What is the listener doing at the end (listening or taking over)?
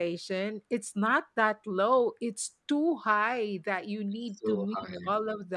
listening